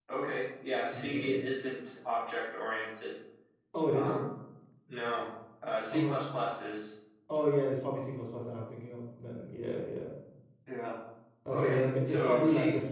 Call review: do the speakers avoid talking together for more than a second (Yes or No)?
No